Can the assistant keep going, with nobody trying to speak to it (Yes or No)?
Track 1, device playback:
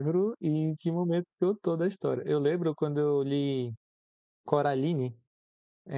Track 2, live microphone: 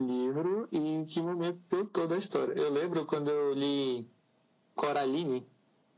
Yes